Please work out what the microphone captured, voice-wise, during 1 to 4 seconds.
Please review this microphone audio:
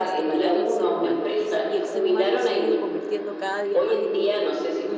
both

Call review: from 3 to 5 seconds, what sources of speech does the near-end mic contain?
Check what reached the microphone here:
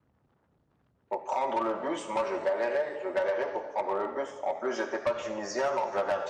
echo only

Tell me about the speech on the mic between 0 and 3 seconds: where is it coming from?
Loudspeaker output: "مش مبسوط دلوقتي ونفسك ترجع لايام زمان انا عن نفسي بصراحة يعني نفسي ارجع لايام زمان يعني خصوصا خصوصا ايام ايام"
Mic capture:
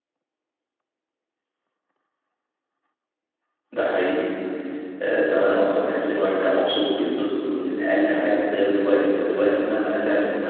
neither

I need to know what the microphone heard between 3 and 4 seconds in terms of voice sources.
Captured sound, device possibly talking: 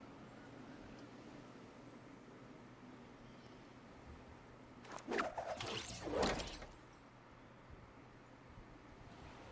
neither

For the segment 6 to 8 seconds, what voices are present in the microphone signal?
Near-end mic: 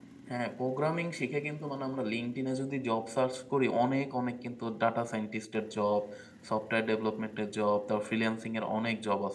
user only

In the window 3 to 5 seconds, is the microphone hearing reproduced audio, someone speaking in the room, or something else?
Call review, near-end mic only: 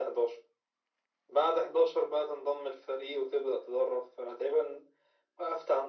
echo only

